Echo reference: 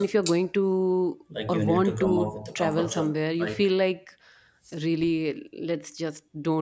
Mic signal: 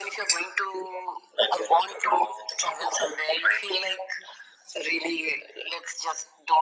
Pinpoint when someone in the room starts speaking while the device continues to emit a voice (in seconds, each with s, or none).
none